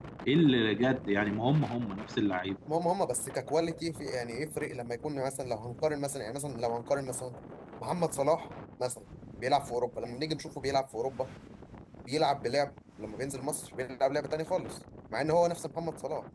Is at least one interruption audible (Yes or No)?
No